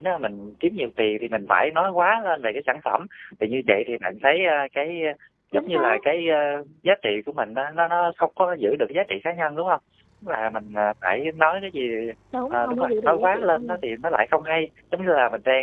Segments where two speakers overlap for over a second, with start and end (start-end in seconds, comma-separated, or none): 12.5-13.8